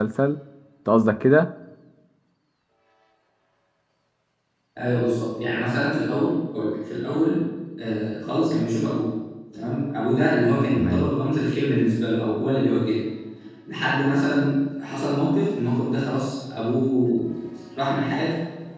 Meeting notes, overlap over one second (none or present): none